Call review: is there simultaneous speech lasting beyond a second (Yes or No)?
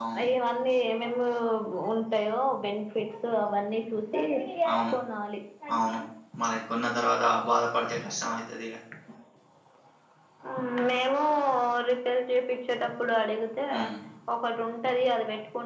No